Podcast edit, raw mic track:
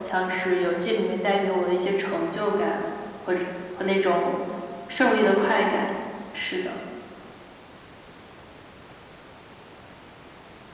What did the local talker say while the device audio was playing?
none

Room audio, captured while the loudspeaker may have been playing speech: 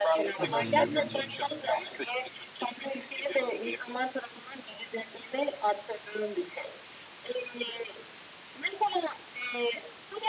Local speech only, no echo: Hı hı.

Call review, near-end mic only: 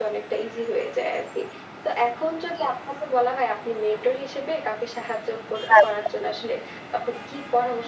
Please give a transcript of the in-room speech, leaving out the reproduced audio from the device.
আচ্ছা।

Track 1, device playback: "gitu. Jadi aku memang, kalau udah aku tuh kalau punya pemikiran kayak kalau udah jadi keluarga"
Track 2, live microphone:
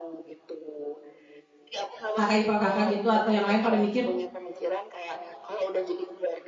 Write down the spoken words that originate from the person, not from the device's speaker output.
kakak ipar Kakak gitu, atau yang lain pada mikir,

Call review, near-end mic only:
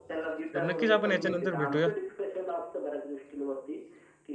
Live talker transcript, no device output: तर नक्कीच आपण याच्यानंतर भेटूया.

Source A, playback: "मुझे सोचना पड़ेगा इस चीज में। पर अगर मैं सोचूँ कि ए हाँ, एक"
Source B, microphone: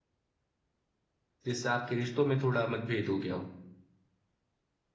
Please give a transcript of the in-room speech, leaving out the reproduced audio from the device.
जिससे आपके रिश्तों में थोड़ा मतभेद हो गया हो?

